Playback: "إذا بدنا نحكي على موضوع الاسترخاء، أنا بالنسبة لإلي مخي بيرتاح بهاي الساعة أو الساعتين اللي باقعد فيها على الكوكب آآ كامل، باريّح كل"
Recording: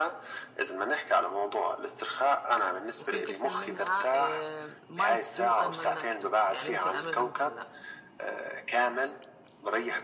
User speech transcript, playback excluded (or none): وفي قسم منها آآ might do and might not do يعني ممكن أعملها ممكن لأ.